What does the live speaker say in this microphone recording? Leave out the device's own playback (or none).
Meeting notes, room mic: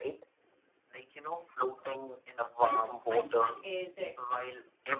Ice- Iceland is a,